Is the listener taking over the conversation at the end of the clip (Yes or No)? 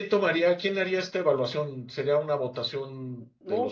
No